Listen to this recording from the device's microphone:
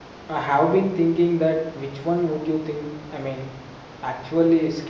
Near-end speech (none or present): present